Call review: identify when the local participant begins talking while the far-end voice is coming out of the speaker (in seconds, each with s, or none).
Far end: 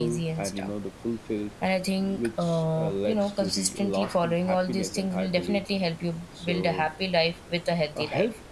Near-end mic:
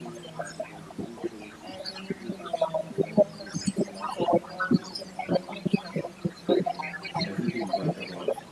7.2 s